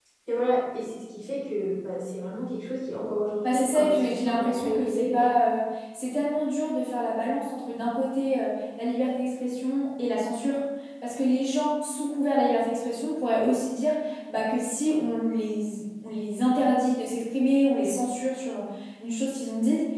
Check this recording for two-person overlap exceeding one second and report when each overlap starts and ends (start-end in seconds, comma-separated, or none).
3.4-5.3